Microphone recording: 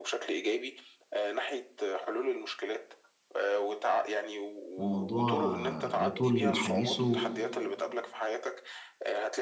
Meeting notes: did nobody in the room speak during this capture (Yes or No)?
No